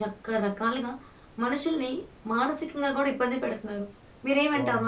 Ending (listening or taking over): listening